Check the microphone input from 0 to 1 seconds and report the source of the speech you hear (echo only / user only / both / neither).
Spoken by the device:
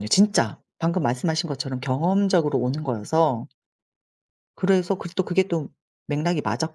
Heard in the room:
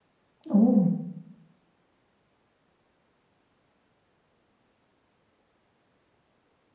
user only